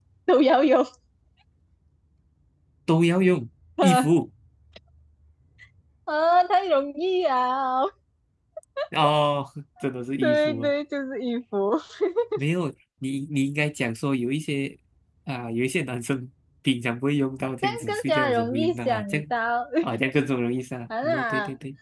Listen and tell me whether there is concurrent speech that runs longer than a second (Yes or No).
Yes